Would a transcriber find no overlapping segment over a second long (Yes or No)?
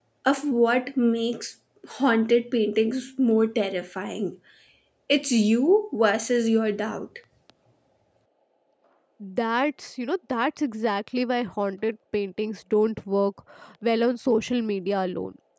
Yes